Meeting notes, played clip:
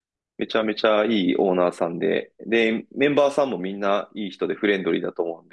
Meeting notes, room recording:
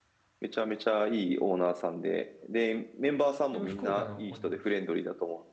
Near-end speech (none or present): present